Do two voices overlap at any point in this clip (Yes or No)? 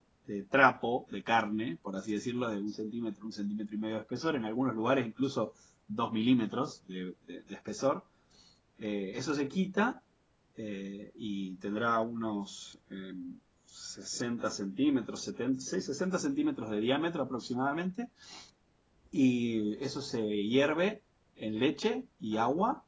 No